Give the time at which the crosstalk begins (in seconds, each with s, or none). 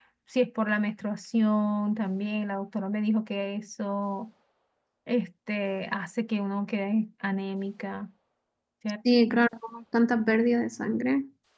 none